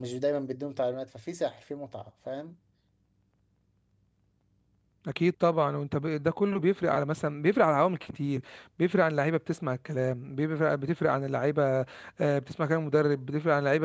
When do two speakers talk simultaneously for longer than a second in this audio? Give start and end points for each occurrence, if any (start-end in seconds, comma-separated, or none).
none